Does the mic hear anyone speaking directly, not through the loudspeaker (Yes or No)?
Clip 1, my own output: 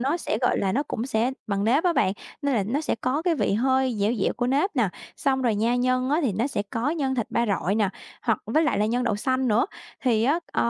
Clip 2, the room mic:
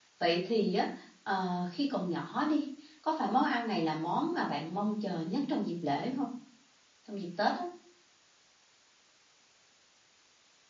Yes